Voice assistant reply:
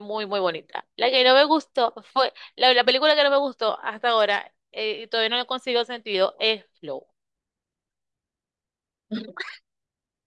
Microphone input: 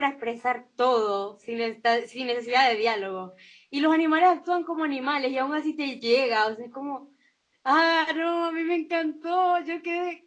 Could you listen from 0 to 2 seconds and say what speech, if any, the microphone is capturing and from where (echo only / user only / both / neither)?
user only